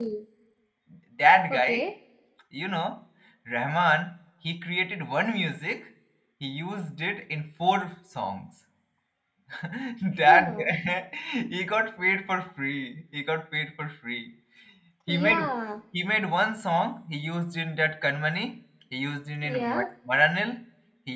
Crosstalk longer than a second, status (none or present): none